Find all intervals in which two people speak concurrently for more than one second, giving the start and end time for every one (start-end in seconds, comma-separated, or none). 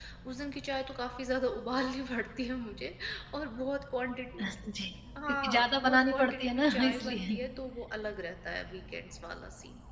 5.3-7.4